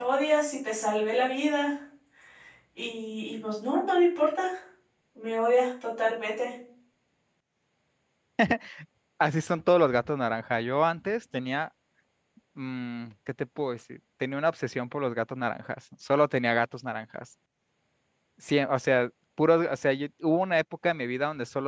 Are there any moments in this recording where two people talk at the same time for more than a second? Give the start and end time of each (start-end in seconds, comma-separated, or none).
none